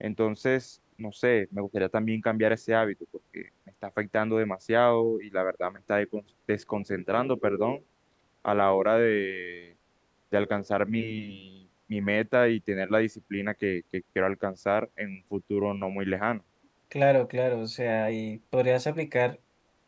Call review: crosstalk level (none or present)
none